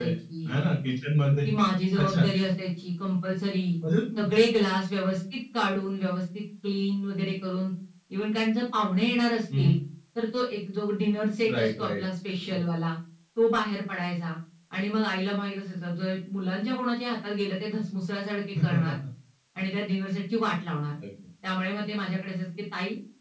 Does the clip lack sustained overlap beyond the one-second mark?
Yes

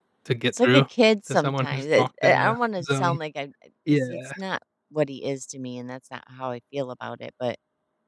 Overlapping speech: Yes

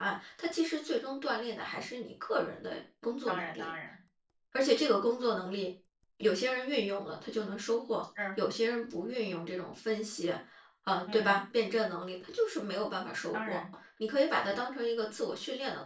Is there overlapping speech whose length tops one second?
No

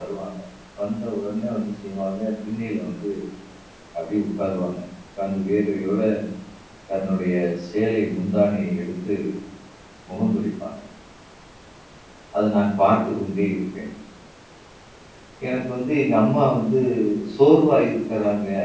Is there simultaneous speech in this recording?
No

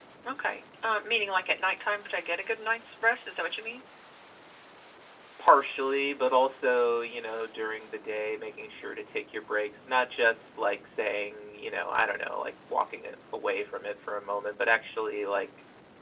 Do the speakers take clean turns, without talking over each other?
Yes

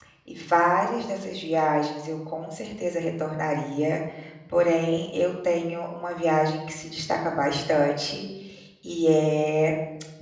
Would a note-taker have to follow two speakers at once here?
No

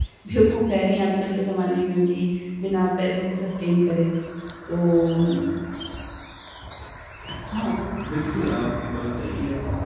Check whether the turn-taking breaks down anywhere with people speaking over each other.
No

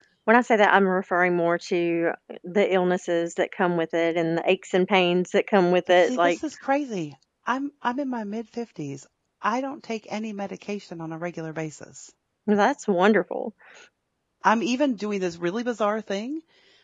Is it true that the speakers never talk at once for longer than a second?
Yes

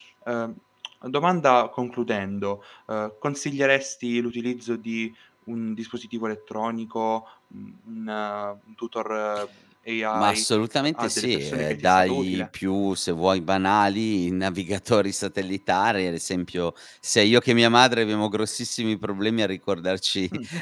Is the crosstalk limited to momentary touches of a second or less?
No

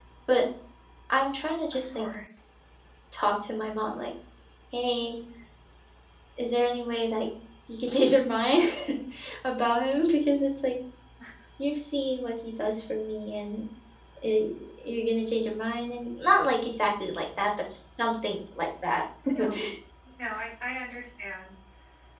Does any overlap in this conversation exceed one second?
No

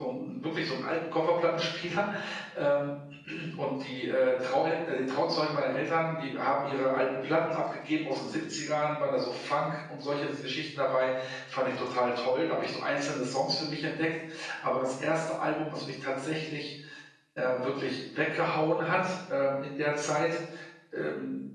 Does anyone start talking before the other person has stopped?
No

